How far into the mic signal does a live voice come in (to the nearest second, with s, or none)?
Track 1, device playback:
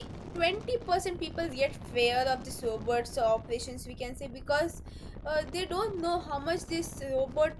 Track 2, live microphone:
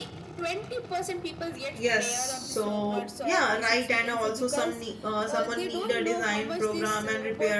2 s